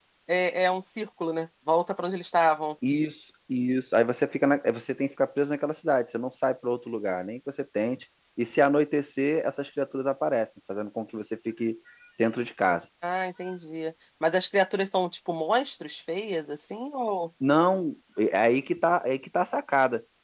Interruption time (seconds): none

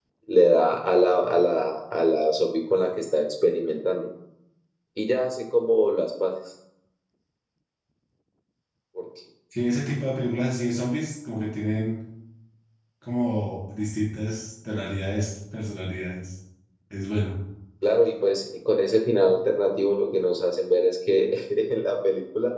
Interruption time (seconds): none

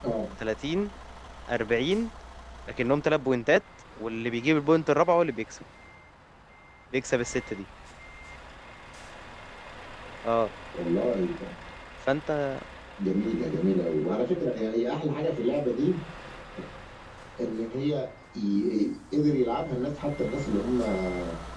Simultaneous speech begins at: none

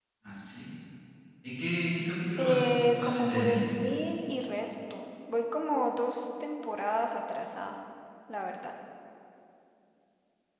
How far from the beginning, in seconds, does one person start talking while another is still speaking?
2.4 s

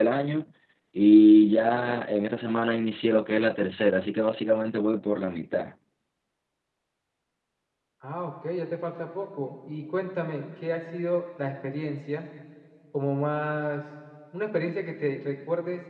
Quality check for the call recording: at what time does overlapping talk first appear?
none

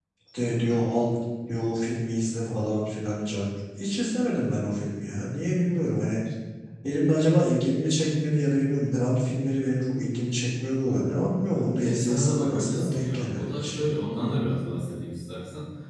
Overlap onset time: 11.5 s

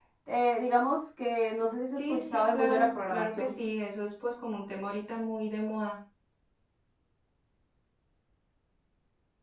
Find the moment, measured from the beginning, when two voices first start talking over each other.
2.1 s

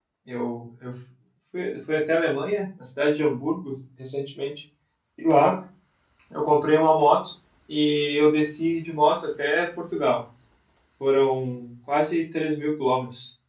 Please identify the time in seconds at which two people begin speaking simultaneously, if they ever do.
none

